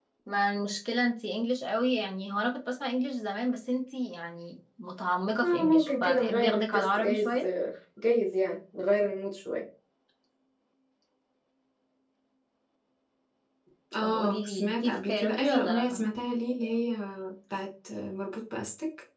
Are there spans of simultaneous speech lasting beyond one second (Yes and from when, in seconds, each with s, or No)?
Yes, from 5.4 s